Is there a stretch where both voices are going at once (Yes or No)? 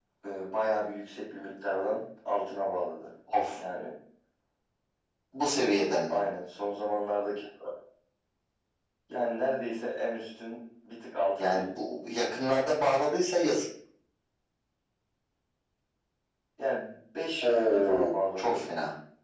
Yes